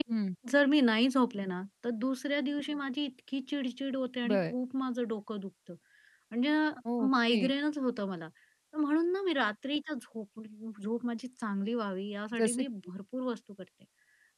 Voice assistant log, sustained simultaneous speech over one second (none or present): none